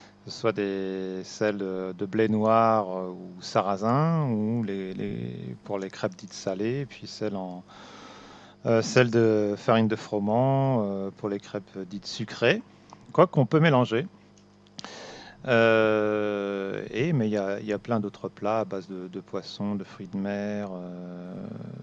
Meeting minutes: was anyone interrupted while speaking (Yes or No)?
No